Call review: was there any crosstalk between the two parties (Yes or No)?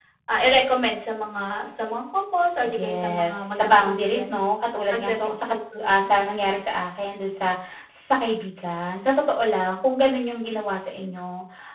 Yes